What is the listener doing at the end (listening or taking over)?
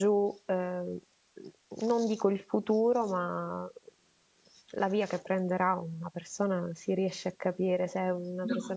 listening